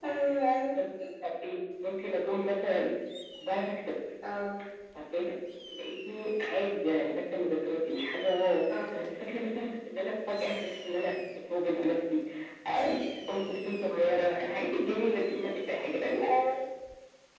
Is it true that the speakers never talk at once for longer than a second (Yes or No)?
Yes